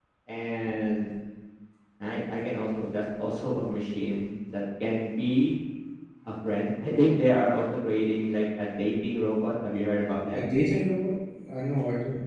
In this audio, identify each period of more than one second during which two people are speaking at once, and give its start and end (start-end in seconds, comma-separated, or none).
none